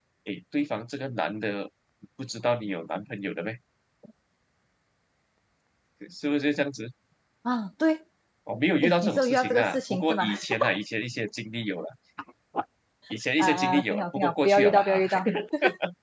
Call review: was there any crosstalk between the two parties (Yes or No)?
Yes